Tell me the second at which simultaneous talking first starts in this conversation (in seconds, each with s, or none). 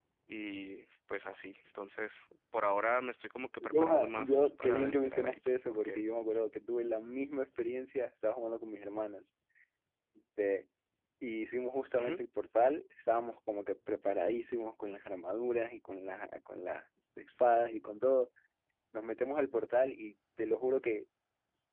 3.6 s